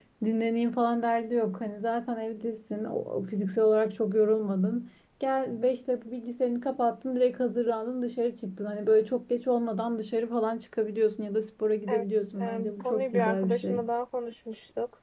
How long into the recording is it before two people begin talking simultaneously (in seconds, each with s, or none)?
11.9 s